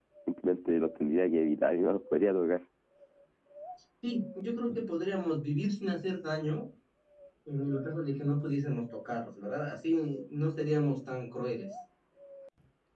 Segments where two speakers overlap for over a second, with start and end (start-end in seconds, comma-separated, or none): none